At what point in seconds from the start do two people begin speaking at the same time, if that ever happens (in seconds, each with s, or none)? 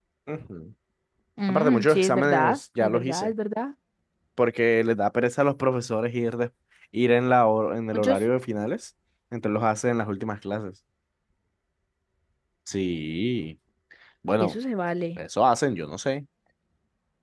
1.5 s